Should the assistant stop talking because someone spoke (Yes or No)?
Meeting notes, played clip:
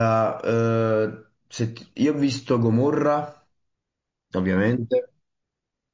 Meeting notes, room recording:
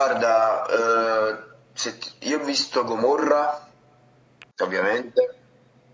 No